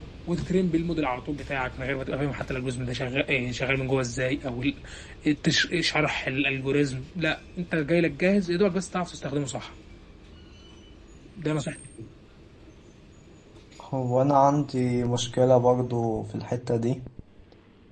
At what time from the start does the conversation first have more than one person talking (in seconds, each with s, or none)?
none